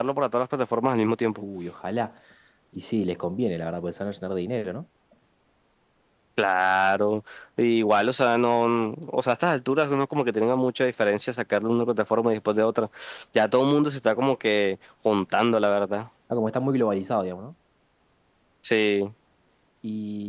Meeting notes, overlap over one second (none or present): none